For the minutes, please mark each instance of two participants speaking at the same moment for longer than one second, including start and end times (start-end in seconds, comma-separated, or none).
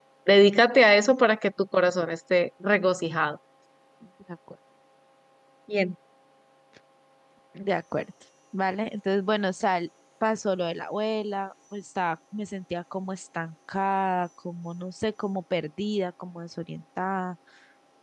none